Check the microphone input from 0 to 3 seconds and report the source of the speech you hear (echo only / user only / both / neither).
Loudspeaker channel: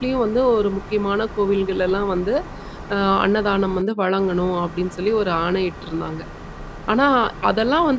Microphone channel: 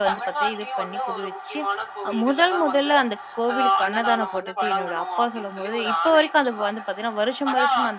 both